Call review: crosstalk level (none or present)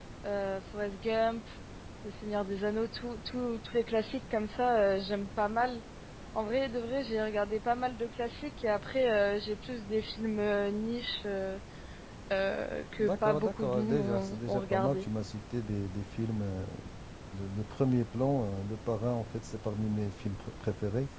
present